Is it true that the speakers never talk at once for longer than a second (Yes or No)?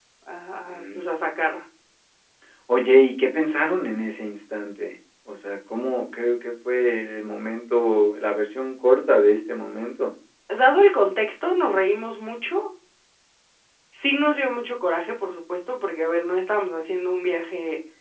Yes